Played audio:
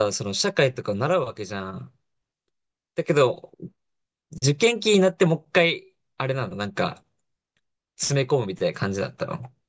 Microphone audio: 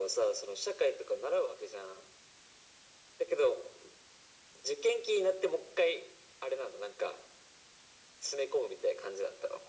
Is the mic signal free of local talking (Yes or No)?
Yes